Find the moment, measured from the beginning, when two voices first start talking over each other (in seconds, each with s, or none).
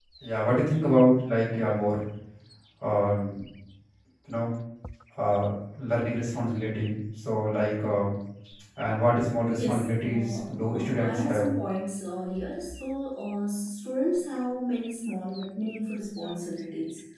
9.5 s